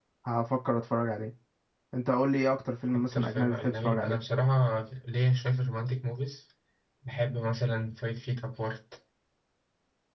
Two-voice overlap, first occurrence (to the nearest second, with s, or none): 3 s